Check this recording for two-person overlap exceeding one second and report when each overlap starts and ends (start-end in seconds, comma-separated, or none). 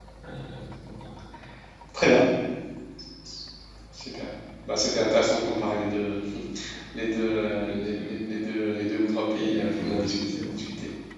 9.3-10.5